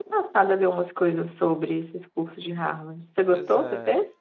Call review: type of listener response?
taking over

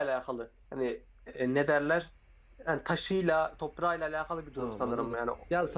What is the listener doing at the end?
taking over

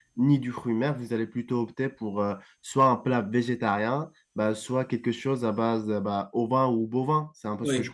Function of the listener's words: taking over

